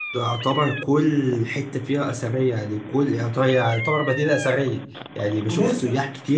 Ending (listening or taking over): listening